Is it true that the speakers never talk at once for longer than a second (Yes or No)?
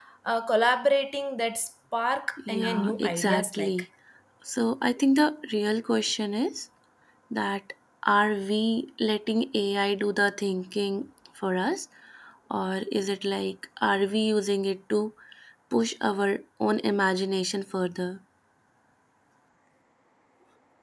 No